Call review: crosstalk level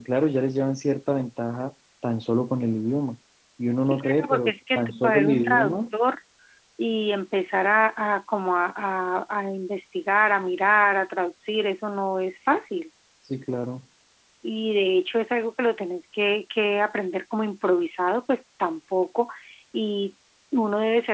present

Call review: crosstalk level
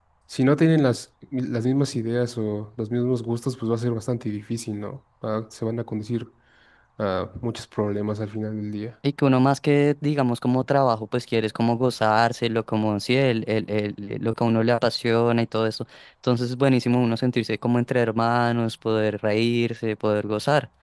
none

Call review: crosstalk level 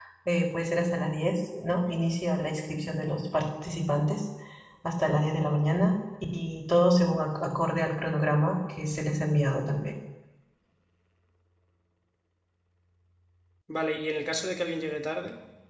none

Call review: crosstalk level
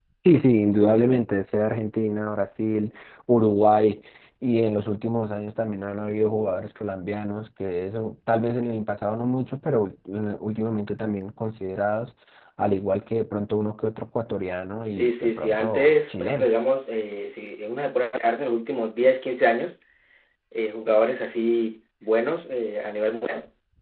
present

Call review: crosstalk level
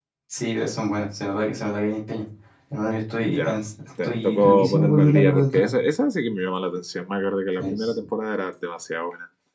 present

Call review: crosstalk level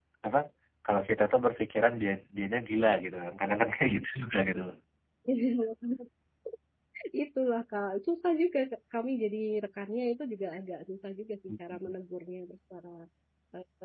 none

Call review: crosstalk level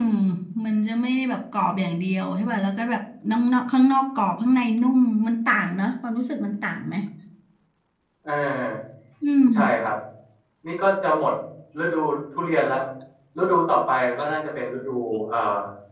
none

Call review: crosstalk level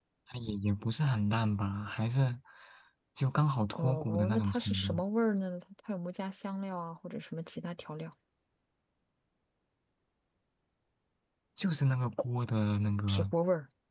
present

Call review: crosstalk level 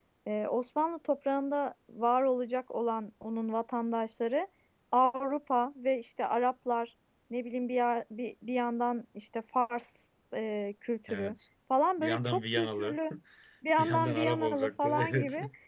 present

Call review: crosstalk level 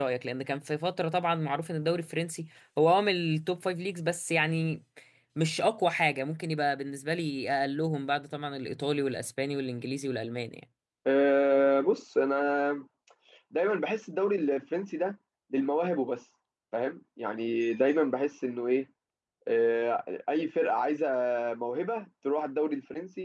none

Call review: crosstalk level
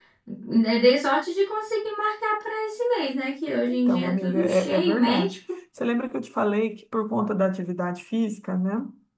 present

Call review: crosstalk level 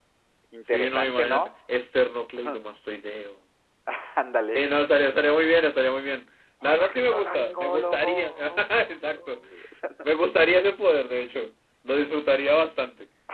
present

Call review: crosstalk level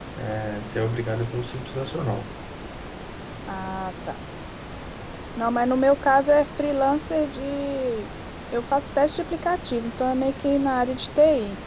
none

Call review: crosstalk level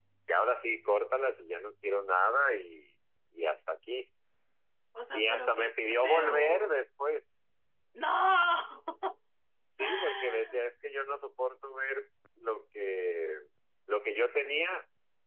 present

